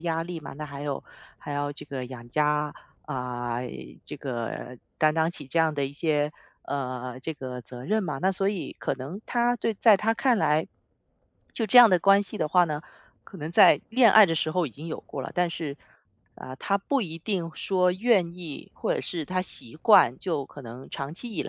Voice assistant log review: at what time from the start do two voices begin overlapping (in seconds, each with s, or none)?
none